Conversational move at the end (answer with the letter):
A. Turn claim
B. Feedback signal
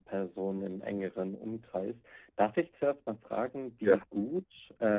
B